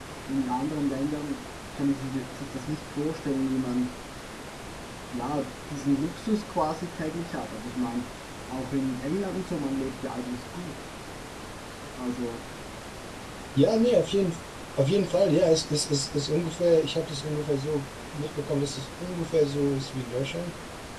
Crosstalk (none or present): none